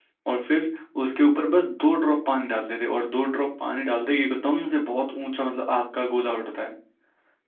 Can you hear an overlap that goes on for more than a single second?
No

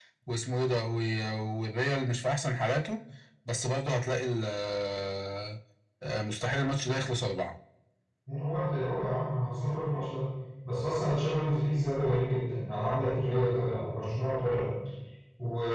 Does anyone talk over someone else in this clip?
No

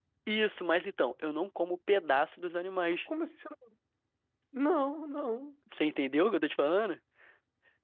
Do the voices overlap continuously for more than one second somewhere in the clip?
No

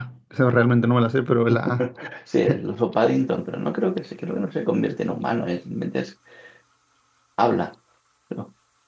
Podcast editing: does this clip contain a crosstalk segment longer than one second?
No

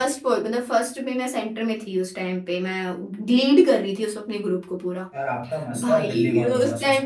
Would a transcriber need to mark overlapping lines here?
Yes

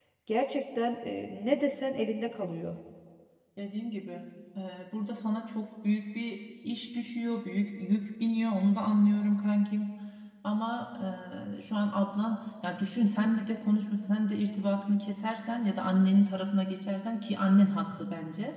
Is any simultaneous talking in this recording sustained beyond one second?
No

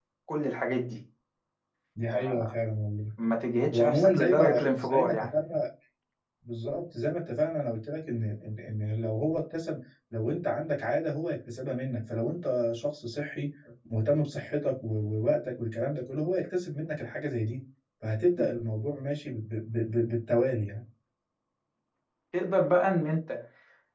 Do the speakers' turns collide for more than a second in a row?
Yes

